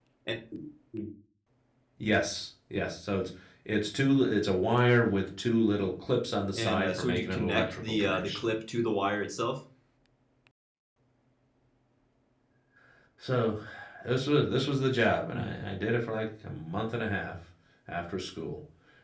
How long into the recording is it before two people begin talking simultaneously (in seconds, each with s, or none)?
6.5 s